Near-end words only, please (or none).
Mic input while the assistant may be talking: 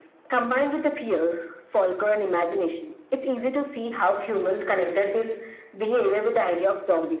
none